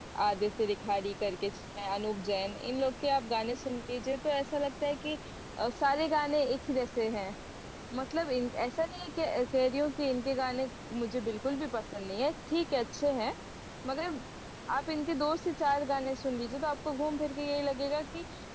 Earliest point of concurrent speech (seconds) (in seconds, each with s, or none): none